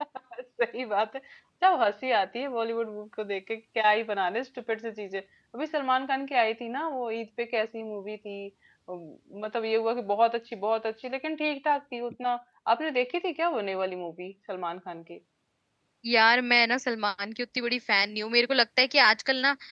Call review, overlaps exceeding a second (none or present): none